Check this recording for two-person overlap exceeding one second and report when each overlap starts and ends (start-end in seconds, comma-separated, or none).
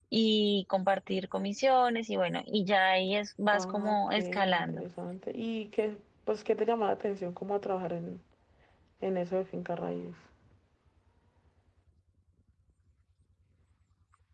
3.5-4.8